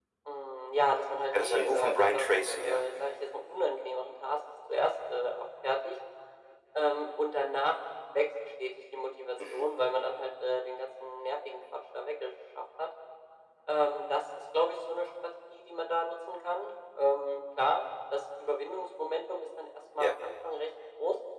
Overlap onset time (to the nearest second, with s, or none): 1 s